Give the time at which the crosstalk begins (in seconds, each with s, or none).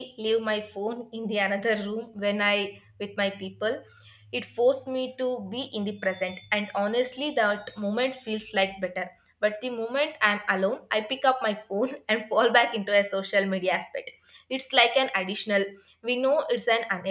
none